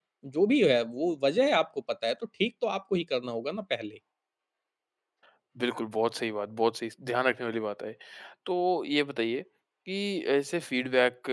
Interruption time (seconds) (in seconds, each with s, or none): none